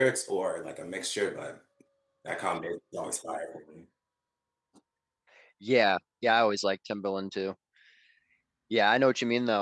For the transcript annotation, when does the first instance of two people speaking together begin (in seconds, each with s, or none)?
none